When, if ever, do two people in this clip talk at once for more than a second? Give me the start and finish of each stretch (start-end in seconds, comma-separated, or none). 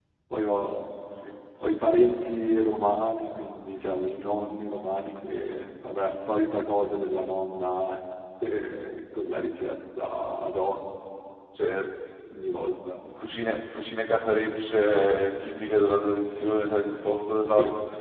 none